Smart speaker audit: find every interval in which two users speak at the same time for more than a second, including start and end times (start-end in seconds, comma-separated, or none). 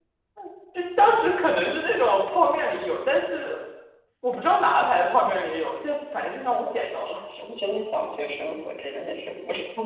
none